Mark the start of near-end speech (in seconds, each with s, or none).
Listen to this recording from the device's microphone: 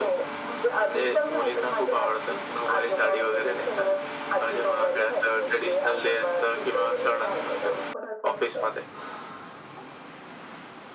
none